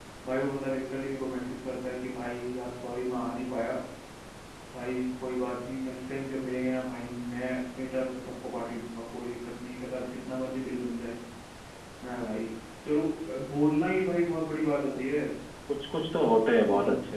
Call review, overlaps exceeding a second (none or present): none